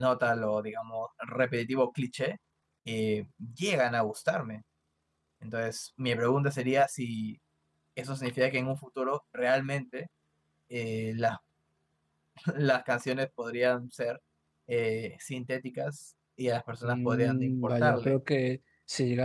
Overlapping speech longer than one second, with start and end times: 16.8-18.1

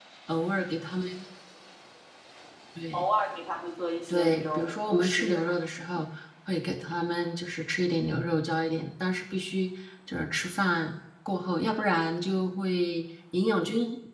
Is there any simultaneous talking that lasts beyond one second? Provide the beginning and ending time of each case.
4.1-5.4

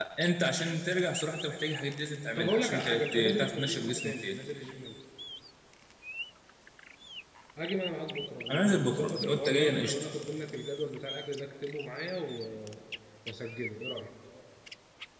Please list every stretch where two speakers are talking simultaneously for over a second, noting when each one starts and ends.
2.4-4.4, 8.5-9.9

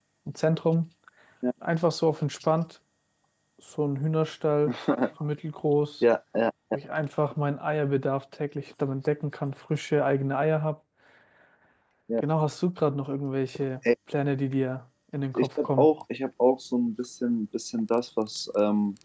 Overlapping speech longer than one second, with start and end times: none

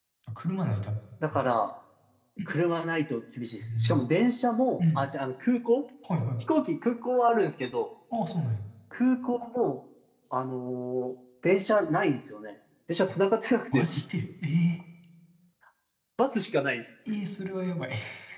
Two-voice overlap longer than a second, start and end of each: none

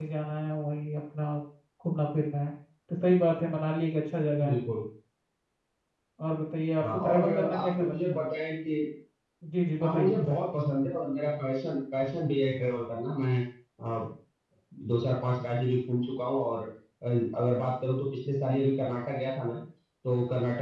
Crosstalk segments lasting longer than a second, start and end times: 6.8-8.2

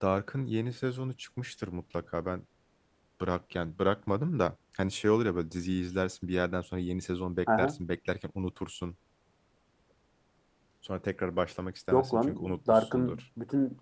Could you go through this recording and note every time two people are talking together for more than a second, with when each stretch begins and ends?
11.9-13.2

